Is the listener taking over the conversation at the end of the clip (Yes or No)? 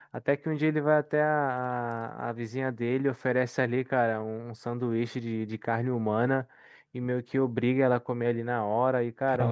No